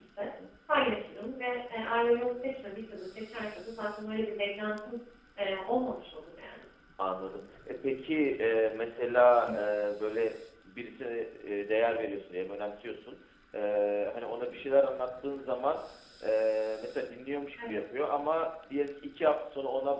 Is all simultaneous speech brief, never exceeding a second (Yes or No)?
Yes